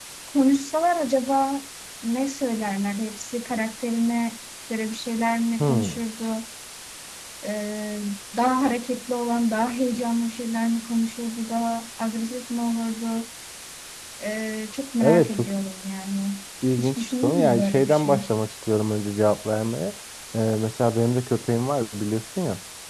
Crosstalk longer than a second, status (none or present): present